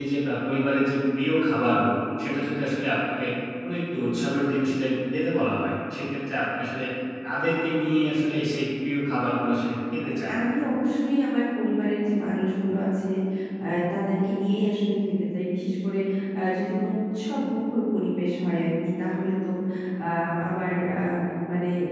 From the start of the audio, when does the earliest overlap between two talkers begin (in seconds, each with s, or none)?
none